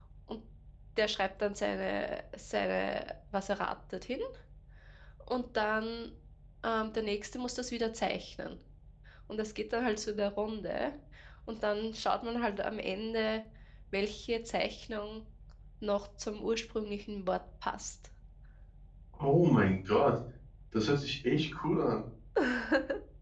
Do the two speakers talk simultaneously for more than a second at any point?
No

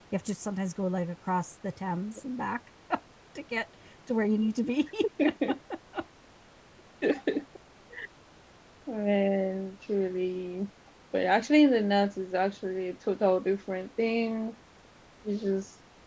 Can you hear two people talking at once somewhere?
No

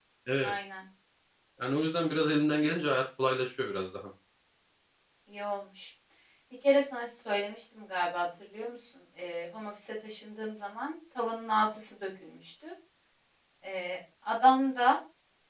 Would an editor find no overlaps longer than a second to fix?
Yes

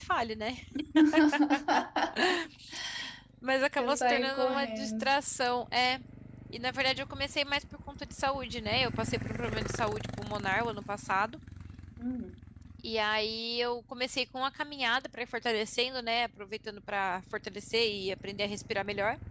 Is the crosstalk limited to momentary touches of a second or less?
No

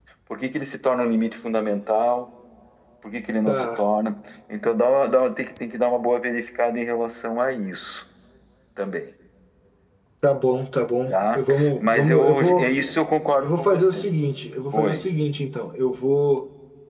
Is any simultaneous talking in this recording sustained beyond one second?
Yes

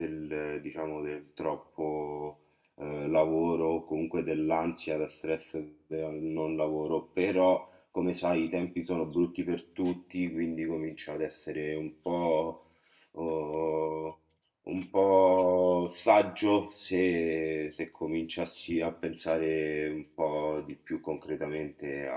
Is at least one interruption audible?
No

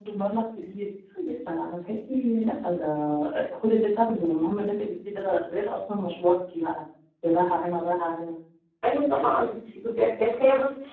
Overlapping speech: No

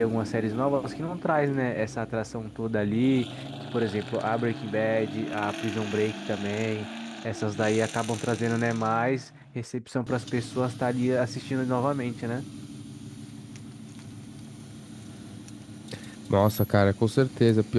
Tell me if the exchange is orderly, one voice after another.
Yes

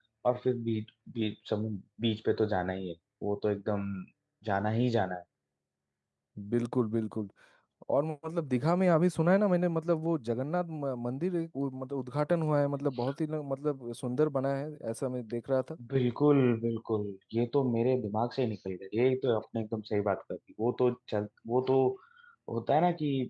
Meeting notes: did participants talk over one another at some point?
No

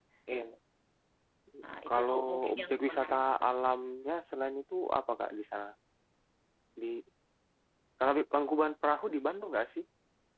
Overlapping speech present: Yes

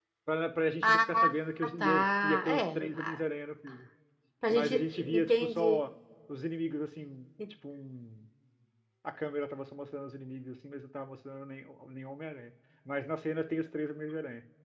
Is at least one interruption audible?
Yes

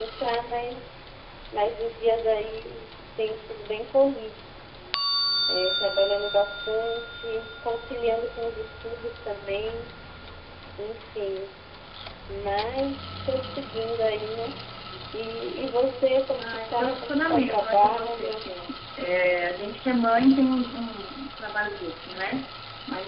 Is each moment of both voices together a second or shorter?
No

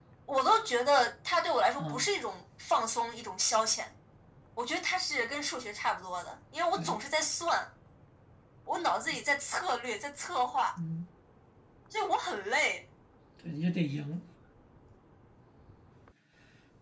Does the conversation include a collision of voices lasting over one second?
No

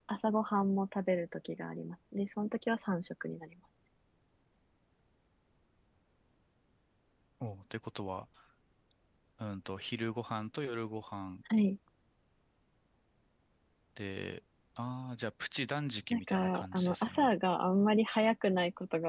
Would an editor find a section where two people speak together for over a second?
Yes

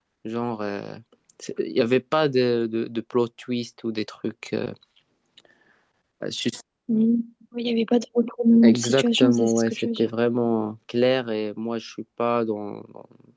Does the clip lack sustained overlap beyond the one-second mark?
No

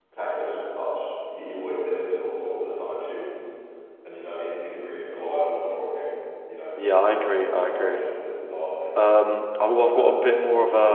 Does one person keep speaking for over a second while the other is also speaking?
Yes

